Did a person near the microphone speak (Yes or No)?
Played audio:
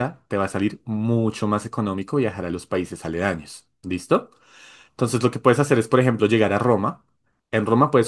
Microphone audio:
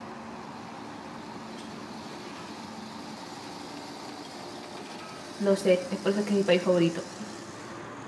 Yes